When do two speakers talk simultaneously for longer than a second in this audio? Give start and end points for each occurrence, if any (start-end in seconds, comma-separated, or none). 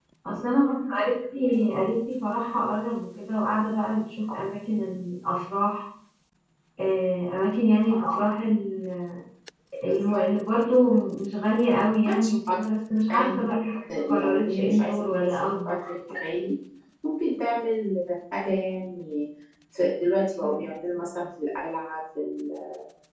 14.2-16.0